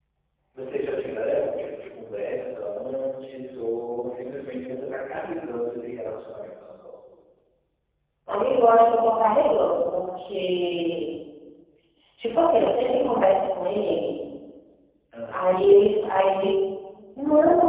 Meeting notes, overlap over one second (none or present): none